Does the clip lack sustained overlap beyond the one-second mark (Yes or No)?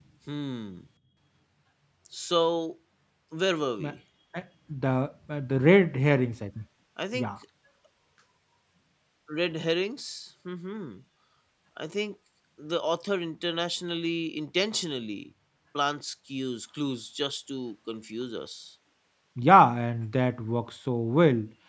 Yes